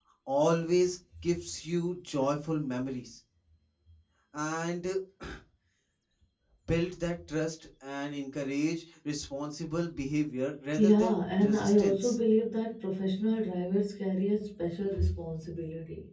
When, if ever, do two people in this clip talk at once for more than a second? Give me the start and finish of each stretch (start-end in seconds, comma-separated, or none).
10.8-12.2